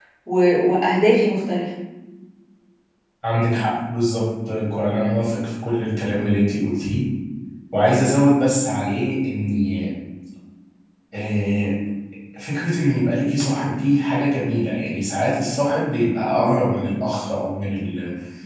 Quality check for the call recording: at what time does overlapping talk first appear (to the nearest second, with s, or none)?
none